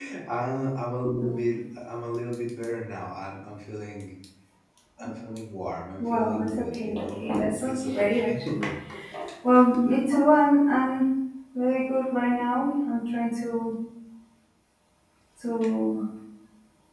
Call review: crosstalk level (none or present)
present